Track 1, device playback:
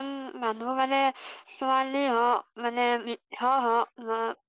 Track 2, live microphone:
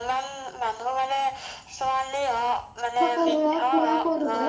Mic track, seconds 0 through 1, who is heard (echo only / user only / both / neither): echo only